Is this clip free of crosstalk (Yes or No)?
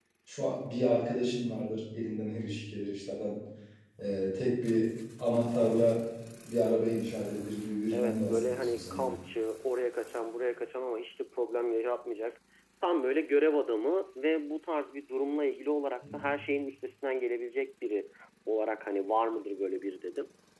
No